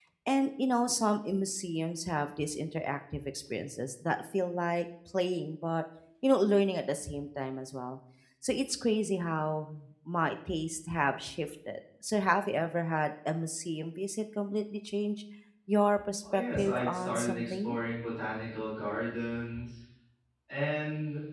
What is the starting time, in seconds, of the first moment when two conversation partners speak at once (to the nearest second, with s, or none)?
16 s